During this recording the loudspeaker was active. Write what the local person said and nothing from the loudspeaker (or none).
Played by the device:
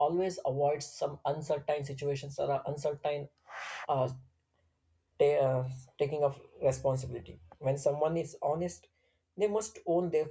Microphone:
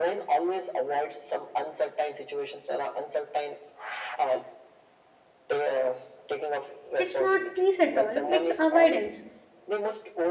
It's not peace at all, it's avoidance.